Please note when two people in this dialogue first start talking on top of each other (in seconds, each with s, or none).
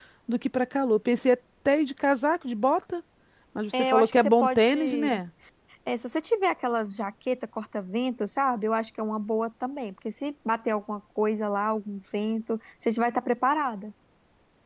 3.8 s